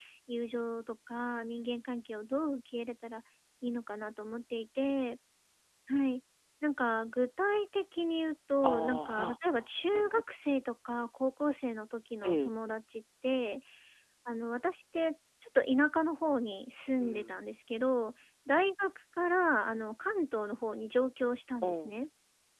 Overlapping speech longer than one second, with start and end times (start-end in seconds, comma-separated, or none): 8.6-10.2